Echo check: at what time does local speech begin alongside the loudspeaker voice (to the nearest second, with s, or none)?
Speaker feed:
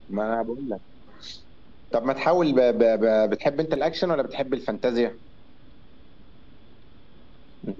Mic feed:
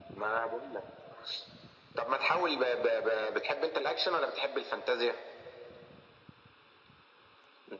none